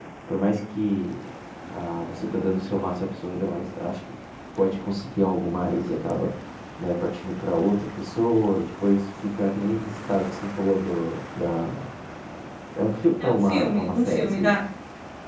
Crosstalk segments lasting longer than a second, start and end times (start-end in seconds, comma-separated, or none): 13.2-14.6